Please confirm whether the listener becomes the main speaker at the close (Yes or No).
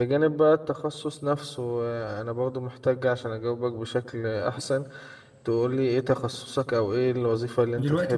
Yes